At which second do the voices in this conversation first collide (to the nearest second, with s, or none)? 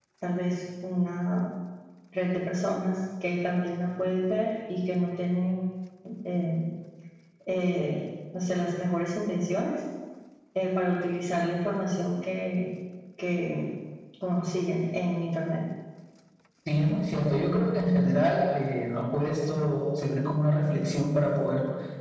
none